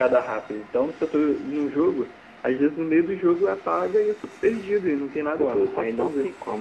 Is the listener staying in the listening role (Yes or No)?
No